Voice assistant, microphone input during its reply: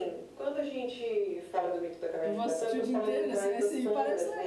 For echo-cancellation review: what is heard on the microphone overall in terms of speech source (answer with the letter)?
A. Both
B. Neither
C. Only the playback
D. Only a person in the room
A